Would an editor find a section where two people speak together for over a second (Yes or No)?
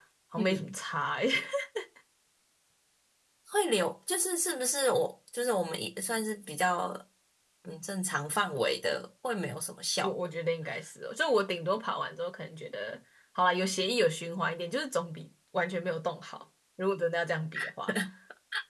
No